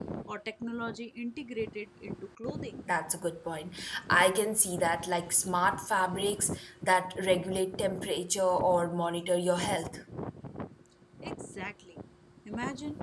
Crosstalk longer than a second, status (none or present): none